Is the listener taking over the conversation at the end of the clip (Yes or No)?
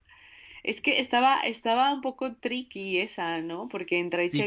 Yes